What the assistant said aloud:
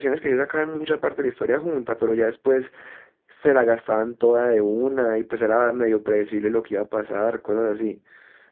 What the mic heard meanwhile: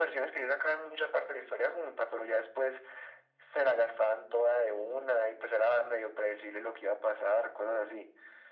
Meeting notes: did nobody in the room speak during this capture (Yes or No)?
Yes